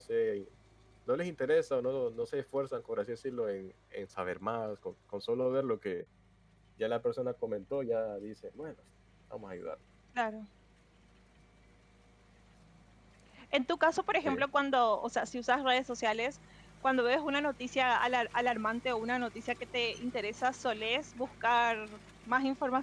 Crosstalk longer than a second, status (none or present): none